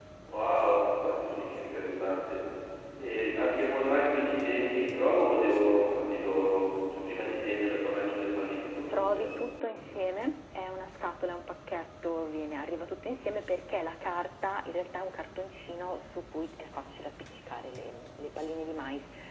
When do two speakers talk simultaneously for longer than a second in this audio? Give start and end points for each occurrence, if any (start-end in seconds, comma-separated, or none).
none